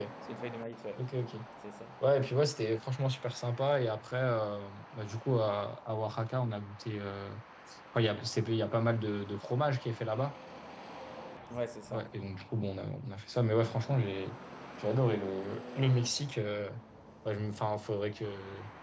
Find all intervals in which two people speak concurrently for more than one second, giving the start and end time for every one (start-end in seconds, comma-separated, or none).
none